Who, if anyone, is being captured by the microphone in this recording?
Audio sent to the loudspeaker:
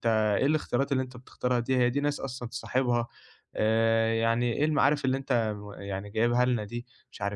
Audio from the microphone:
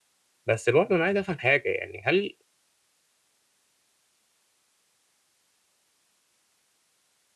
user only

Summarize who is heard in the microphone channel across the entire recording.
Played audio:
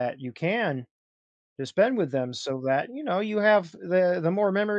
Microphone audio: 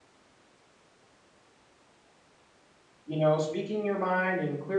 user only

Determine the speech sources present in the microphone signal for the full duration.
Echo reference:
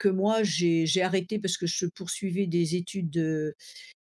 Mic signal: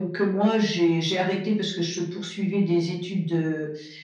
echo only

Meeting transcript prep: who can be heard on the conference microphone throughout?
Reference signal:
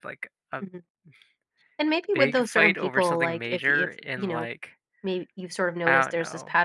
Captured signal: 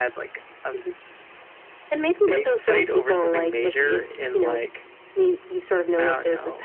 echo only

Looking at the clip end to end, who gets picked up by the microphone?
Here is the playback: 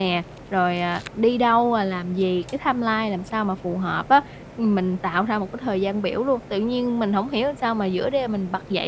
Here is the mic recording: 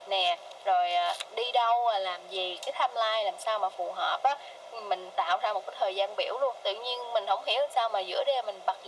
echo only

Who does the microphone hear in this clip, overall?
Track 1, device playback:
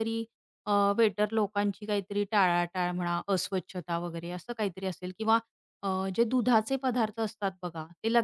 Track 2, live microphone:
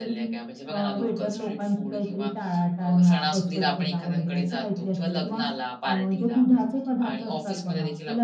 both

